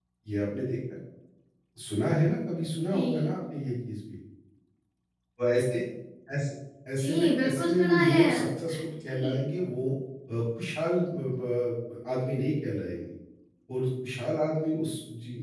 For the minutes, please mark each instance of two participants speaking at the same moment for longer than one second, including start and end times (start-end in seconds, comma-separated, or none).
7.0-8.2